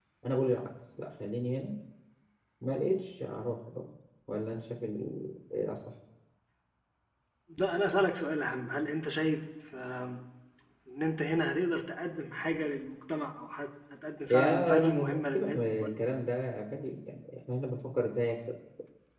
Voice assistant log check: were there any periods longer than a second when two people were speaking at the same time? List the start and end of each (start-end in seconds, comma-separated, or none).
14.3-16.0